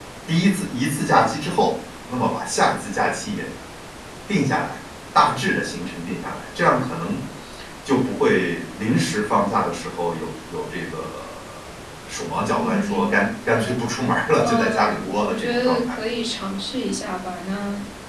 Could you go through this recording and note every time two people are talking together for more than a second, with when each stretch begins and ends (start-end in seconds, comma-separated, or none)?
12.6-13.8, 14.4-16.0